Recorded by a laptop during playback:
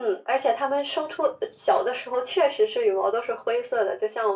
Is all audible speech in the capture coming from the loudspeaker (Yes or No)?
Yes